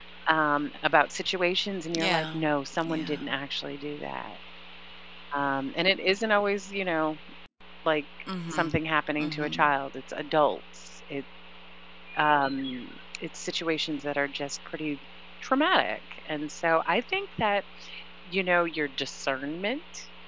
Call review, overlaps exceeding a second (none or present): none